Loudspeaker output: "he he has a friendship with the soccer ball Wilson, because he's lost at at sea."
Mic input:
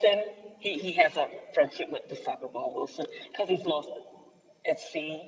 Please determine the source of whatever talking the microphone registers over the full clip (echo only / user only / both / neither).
echo only